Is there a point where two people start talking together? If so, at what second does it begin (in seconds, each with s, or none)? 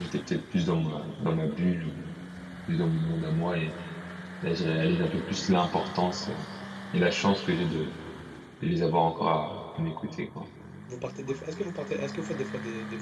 none